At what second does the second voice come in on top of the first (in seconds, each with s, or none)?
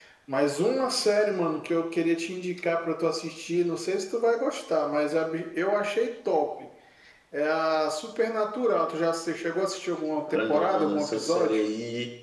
10.2 s